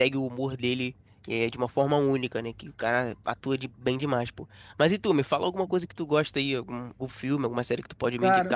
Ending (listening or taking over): taking over